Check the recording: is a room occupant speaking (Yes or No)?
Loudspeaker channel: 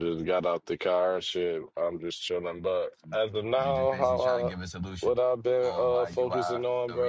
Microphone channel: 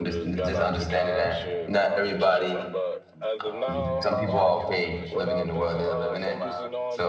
Yes